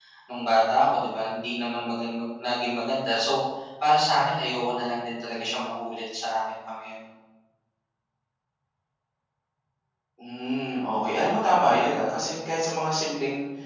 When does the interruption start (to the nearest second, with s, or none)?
none